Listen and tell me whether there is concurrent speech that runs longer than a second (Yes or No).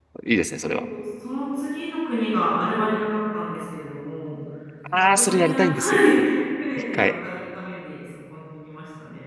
Yes